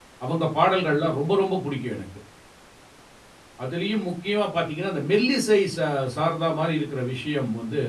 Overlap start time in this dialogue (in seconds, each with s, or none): none